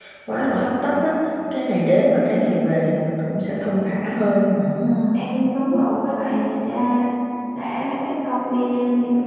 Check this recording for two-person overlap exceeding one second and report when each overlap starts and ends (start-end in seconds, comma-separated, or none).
none